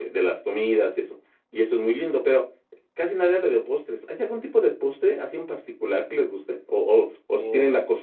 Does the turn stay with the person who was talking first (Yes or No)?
Yes